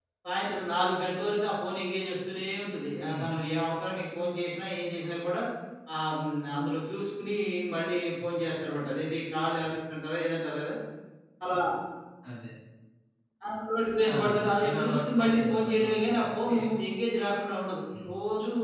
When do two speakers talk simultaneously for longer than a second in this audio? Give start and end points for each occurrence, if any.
14.1-16.5

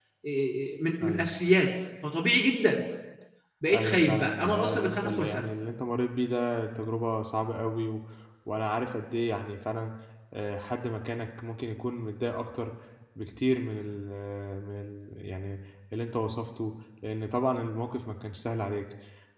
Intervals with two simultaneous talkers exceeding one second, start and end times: 3.7-5.5

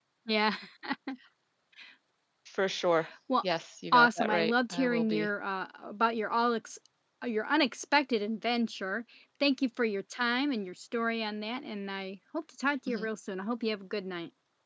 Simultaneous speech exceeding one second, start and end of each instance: 3.9-5.3

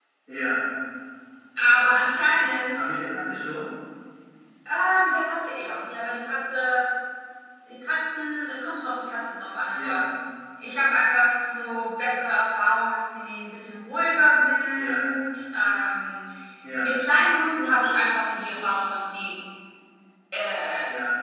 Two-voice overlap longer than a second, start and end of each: 1.6-3.0

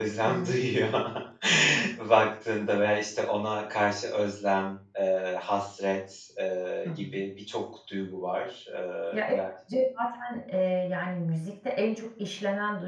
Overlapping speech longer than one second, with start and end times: none

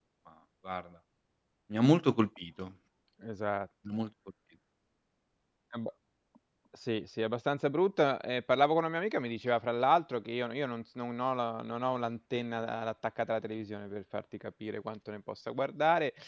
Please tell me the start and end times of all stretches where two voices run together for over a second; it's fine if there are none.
none

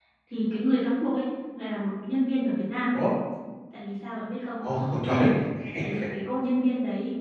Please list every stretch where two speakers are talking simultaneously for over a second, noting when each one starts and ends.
none

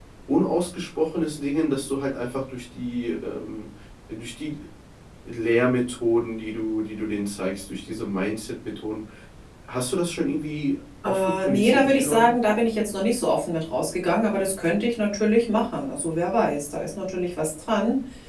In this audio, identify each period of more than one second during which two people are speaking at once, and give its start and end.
11.1-12.3

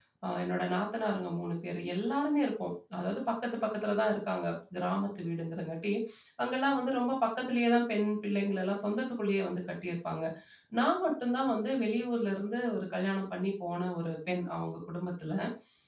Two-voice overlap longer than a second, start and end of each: none

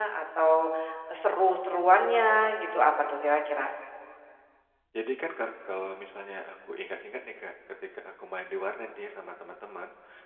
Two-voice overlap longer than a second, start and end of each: none

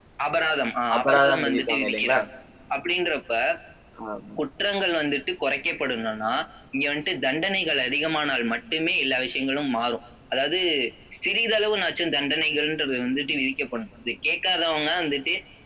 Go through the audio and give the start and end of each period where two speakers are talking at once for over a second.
0.9-2.2

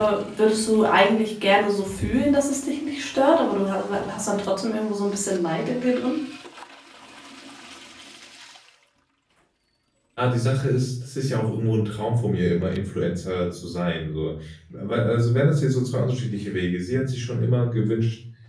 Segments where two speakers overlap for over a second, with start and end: none

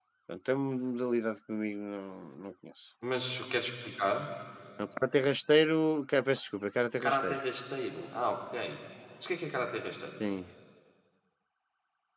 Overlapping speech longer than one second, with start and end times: none

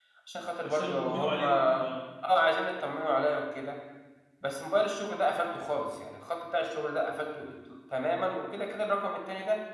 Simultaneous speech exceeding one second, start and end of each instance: 0.6-1.8

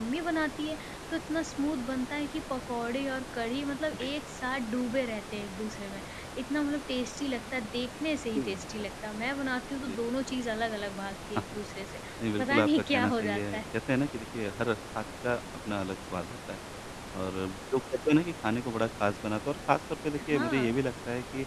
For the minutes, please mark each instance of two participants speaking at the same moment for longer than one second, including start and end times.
12.4-13.6

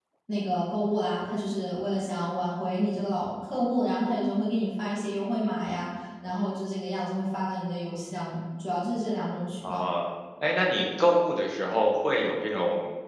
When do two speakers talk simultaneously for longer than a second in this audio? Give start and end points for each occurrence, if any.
none

